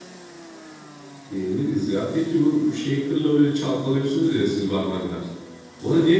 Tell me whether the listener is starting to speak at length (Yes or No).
No